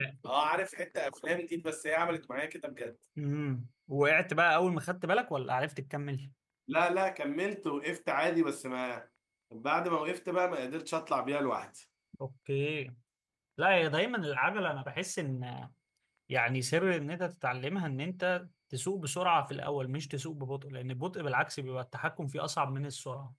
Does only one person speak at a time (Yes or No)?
Yes